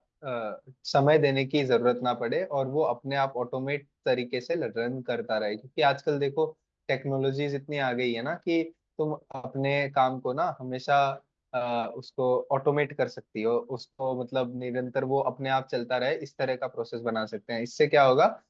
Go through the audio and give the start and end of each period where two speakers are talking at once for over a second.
none

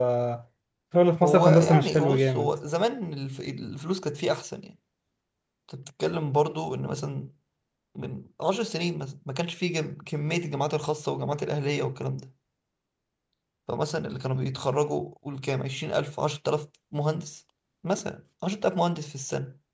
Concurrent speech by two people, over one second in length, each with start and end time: 1.2-2.5

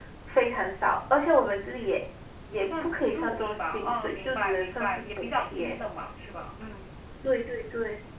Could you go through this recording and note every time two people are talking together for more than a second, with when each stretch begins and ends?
2.6-5.8

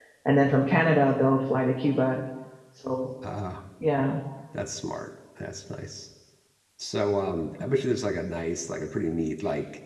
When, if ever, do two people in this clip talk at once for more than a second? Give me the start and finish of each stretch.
none

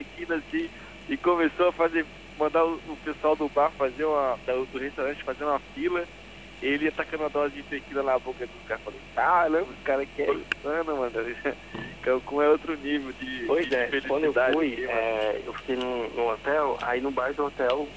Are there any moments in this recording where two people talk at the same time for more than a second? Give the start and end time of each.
13.5-15.1

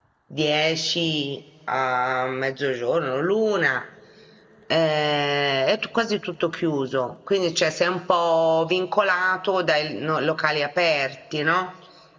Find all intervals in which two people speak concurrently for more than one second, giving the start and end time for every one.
none

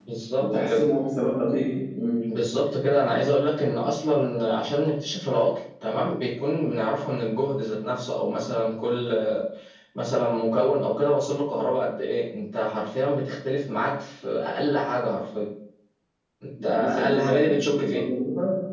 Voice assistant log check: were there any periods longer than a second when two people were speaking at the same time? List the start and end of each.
16.6-18.0

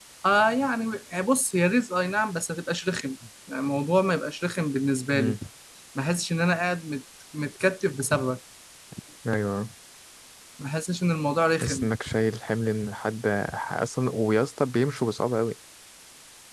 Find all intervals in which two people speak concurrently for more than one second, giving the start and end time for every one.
none

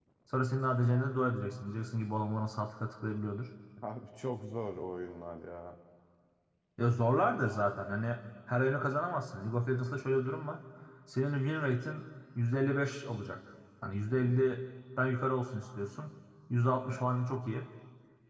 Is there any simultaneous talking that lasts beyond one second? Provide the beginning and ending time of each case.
none

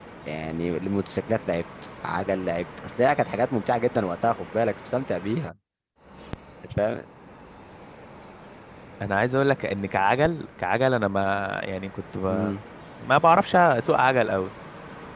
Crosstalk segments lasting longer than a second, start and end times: none

